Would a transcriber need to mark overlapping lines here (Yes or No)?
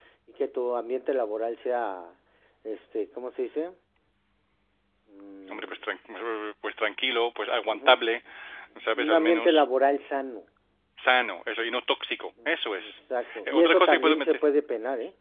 Yes